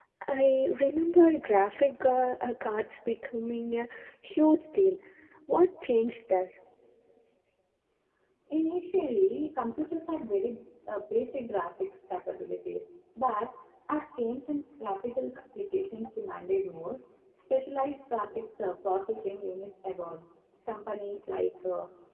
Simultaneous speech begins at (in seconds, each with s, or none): none